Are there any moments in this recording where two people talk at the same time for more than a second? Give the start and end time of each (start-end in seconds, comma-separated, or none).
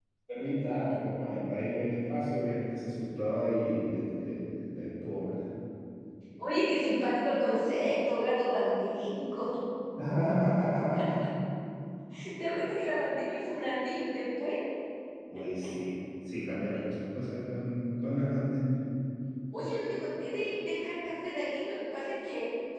none